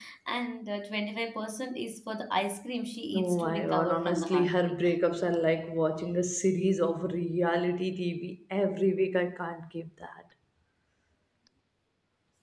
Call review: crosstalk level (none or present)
present